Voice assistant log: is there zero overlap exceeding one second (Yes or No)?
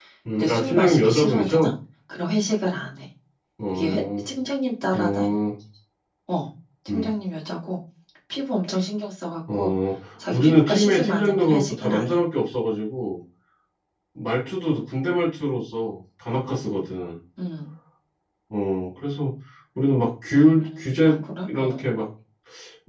No